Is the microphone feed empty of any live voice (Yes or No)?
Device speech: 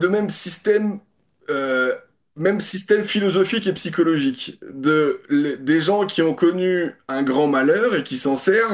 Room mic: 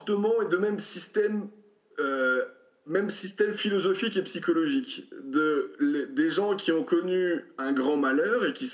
Yes